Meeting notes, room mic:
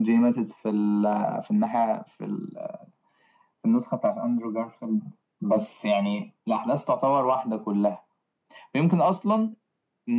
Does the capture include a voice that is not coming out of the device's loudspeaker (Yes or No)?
No